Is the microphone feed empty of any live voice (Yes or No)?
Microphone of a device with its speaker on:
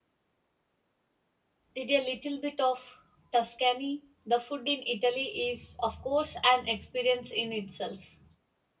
No